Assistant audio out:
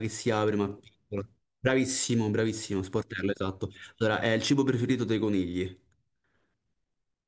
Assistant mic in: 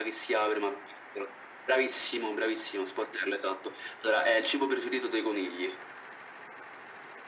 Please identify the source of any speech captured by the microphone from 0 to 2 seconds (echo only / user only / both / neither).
echo only